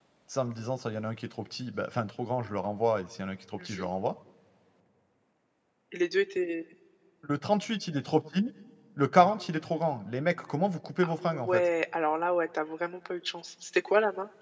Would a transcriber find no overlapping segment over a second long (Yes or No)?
Yes